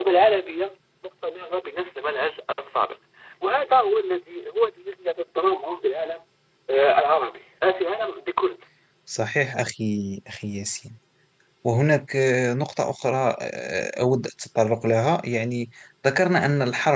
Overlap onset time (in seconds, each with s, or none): none